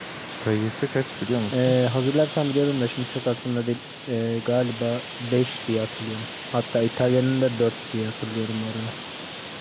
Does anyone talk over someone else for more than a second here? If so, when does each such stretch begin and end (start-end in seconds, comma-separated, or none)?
none